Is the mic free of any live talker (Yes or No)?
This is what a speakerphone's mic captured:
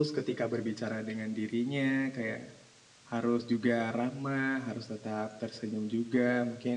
Yes